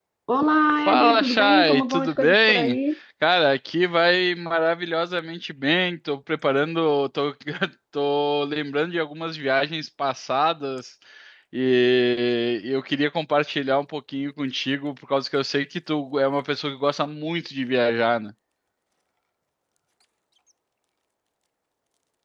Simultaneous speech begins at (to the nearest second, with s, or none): 1 s